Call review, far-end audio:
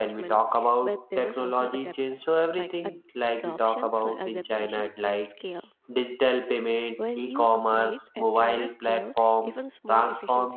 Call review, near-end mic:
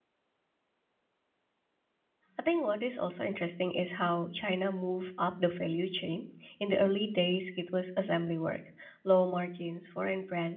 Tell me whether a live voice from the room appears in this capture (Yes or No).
Yes